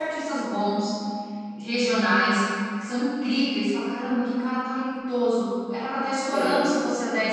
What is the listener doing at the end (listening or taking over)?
listening